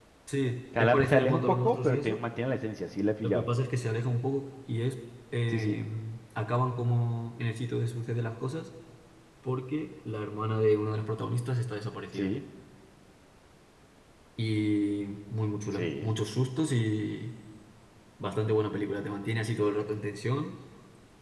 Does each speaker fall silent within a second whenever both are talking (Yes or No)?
No